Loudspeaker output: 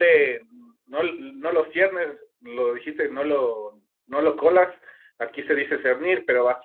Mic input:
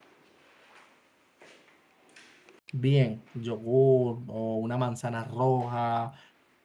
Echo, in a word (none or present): none